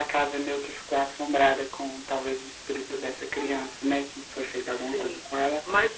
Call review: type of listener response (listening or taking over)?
taking over